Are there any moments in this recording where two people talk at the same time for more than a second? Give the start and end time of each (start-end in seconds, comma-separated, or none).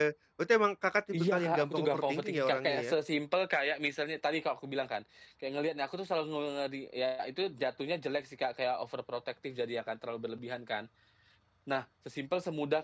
1.1-2.9